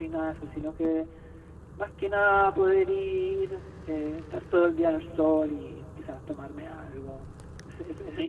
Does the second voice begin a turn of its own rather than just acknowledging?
Yes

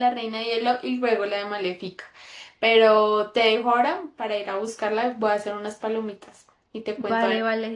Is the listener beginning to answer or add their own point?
Yes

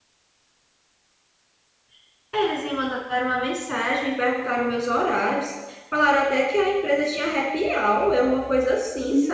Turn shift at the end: Yes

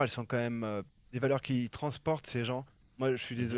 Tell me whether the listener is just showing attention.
Yes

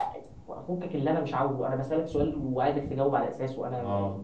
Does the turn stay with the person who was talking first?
Yes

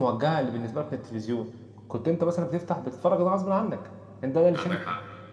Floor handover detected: No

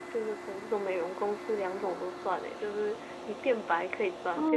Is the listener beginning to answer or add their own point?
Yes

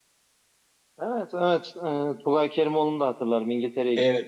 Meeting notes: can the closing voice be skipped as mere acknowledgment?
No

